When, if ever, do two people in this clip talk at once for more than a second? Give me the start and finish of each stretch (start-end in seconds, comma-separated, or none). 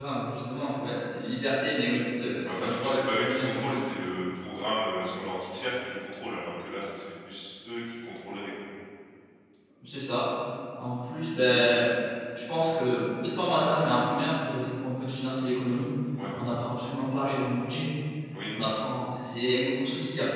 2.5-3.7